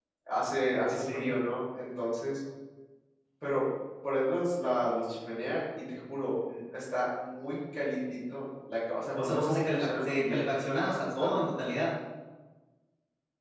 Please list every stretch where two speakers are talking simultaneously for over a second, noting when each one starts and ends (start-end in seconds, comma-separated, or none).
9.2-10.5